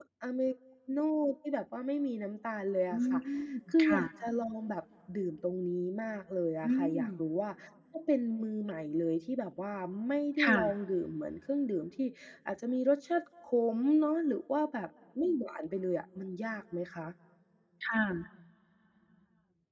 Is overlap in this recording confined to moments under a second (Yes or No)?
Yes